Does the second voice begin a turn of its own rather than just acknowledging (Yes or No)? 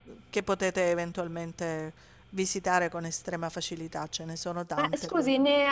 Yes